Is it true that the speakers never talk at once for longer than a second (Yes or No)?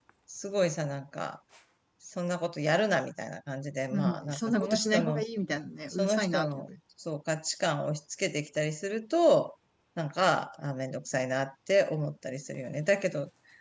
No